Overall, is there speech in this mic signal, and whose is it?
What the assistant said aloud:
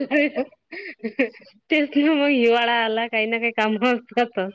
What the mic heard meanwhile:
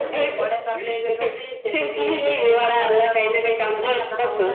both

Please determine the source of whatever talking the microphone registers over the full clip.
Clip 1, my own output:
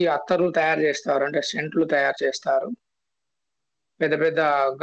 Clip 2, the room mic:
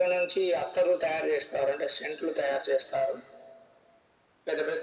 echo only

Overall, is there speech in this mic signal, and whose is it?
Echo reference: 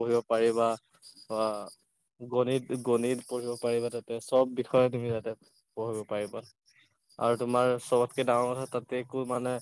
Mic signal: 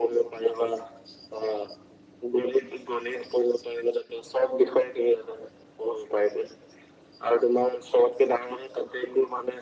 echo only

